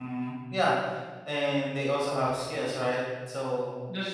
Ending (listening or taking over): listening